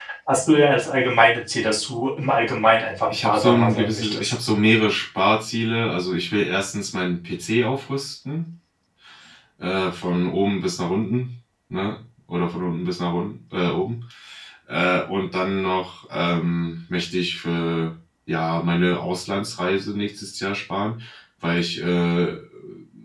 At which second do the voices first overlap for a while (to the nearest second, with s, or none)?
3 s